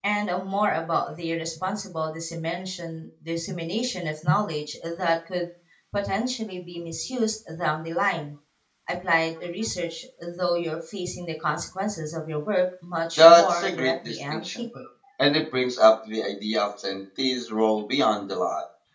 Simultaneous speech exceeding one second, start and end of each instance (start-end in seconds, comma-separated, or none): 13.2-14.6